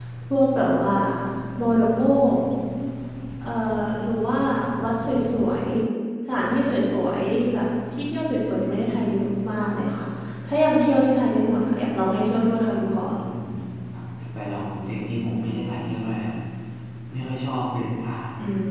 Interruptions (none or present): none